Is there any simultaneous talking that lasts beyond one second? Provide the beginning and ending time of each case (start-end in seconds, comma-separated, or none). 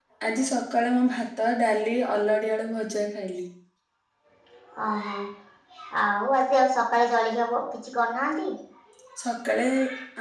none